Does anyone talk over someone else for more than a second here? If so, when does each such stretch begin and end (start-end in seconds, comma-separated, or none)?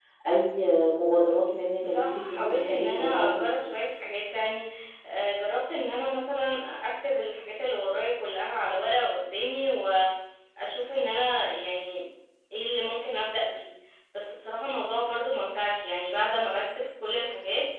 1.9-3.5